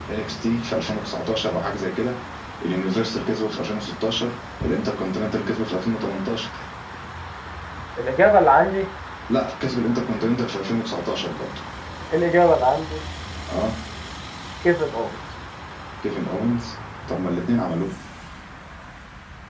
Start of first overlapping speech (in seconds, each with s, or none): none